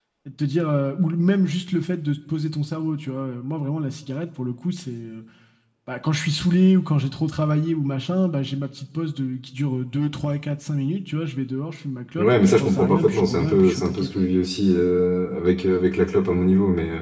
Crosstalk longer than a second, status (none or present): present